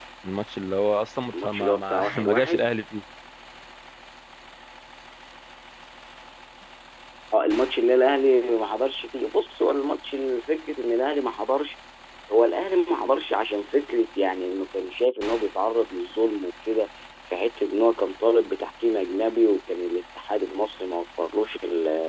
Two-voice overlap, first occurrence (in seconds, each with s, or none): 1.3 s